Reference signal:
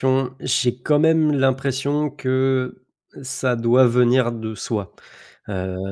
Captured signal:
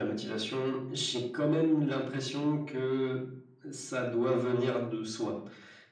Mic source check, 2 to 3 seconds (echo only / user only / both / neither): echo only